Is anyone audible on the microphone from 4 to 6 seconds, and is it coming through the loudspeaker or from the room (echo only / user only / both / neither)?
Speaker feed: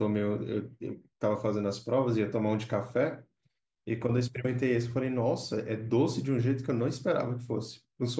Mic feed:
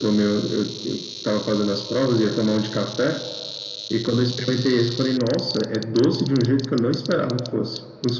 echo only